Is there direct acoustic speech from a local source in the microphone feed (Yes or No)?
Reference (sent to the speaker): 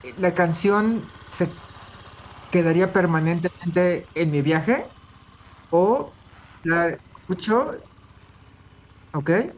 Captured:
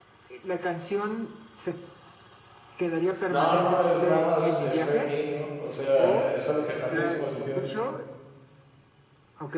Yes